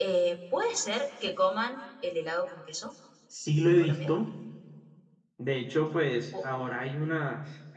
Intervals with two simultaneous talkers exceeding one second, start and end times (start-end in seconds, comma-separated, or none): none